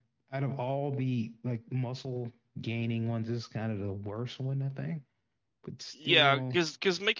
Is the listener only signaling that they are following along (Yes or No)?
No